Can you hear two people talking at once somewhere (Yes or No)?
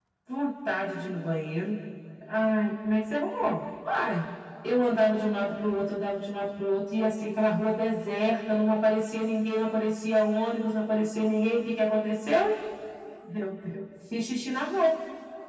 No